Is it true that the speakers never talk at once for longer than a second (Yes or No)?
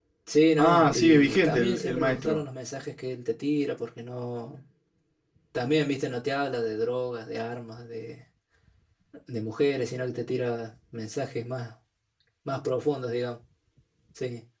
No